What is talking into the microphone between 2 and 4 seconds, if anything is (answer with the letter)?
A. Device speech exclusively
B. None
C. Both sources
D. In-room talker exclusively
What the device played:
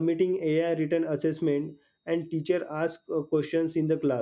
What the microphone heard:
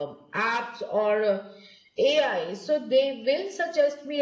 D